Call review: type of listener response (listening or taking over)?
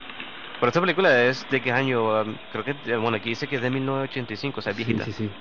taking over